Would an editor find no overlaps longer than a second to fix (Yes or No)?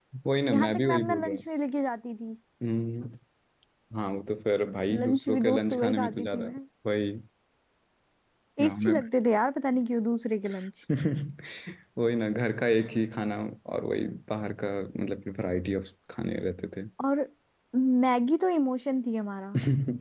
No